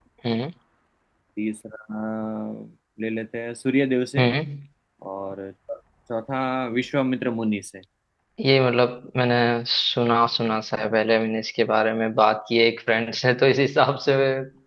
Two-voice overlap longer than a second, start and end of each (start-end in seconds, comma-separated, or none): none